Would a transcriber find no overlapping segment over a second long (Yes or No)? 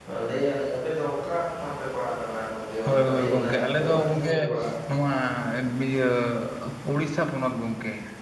No